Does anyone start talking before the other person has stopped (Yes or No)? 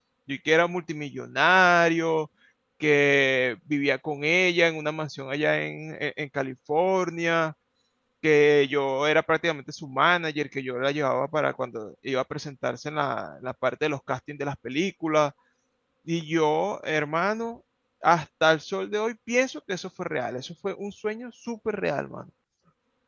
No